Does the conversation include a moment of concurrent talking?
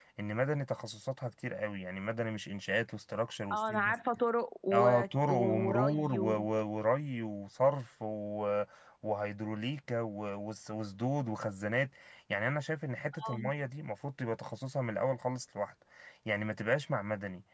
Yes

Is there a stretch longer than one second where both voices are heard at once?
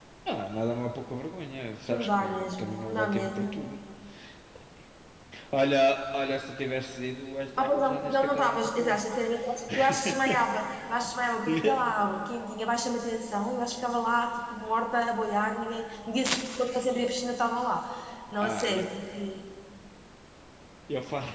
Yes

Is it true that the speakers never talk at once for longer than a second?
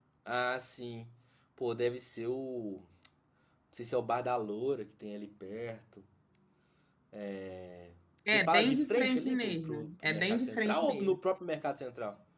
No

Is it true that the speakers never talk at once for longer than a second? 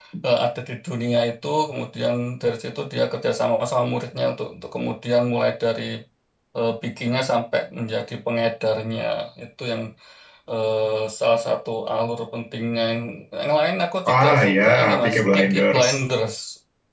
No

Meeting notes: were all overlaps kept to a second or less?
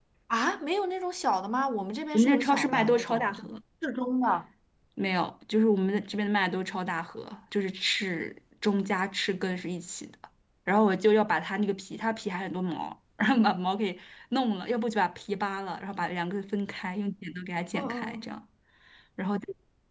No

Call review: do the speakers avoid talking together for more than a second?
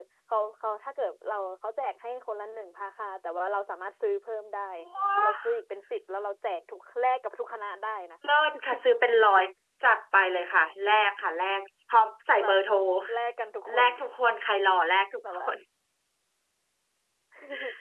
Yes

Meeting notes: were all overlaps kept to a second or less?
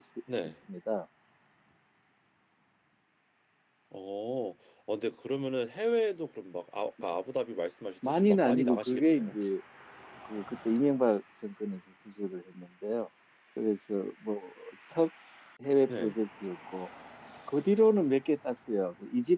No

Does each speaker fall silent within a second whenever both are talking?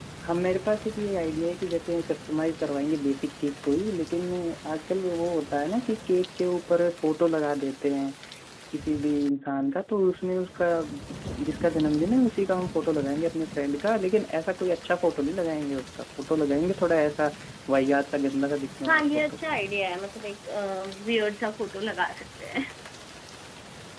Yes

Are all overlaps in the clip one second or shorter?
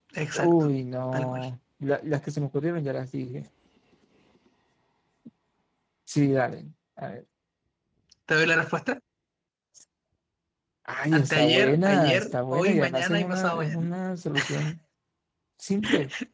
No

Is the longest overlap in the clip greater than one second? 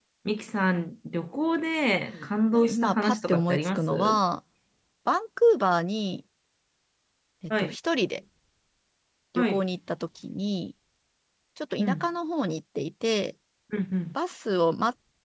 Yes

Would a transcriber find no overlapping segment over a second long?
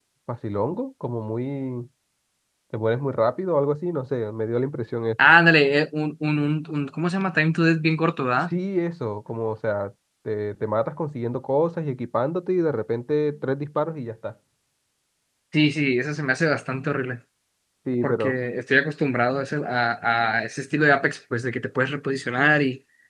Yes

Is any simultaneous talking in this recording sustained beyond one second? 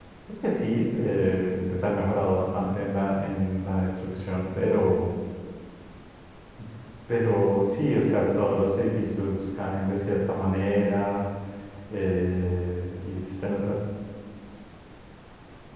No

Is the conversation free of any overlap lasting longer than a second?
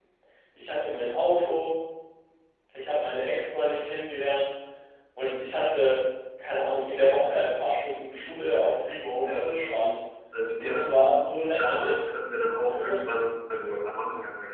No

